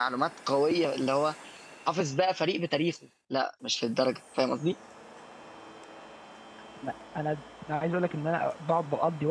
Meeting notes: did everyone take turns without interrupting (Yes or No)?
Yes